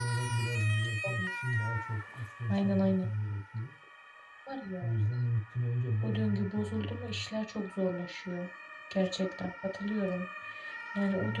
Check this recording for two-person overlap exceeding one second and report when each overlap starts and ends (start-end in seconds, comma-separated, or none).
6.0-7.2